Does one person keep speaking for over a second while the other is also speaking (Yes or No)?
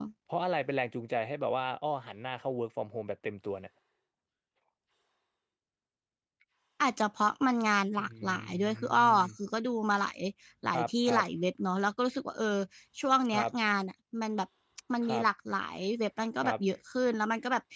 Yes